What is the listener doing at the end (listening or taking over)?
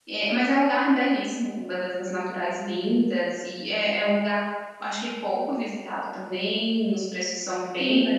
taking over